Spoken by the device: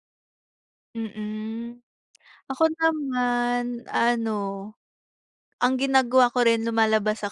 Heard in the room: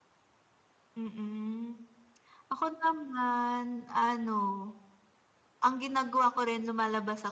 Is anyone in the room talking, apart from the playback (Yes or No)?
No